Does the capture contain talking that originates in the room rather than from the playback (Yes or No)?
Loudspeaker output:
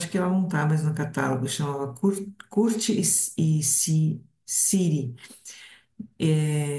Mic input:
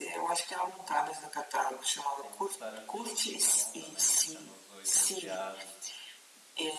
Yes